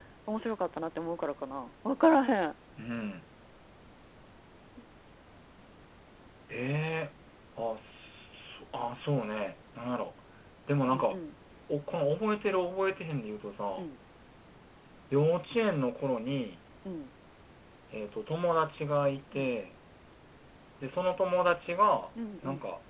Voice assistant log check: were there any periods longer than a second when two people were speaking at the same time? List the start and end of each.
none

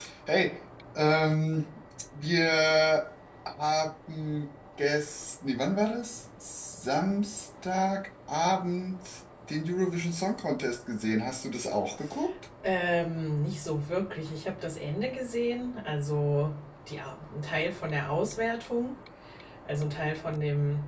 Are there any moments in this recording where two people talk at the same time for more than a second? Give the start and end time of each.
none

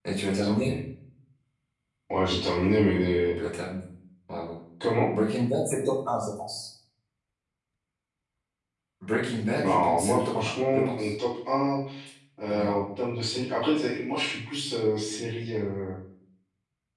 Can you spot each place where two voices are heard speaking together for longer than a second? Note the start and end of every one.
9.6-11.1

